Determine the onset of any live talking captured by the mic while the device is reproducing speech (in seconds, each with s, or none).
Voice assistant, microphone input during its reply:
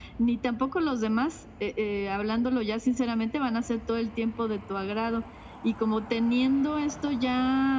none